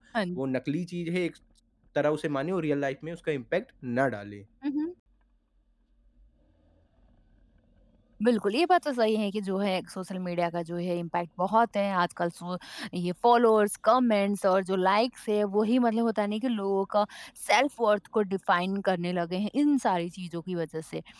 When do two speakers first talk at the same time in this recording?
none

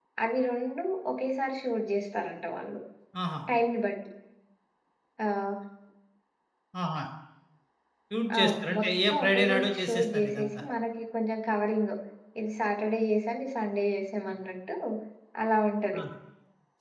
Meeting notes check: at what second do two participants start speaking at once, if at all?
8.4 s

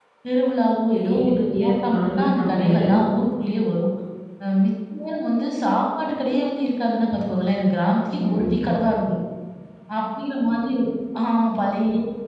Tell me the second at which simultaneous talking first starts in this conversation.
0.9 s

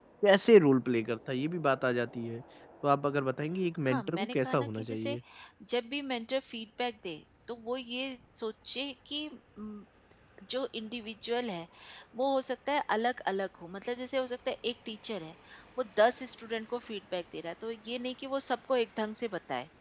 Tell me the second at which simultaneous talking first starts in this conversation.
3.9 s

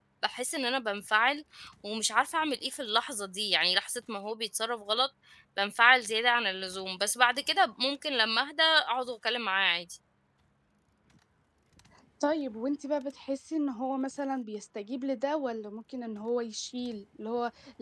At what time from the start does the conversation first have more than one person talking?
none

